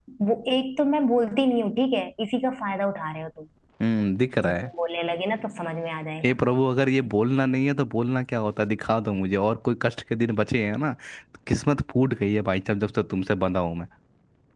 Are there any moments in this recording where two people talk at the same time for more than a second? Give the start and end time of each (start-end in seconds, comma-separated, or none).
none